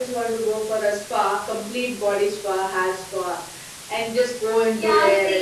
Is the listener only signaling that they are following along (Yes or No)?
No